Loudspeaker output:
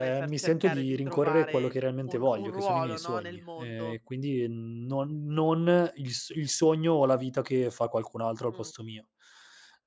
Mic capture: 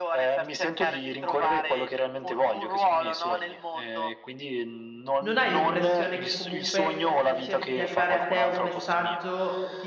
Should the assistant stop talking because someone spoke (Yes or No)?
Yes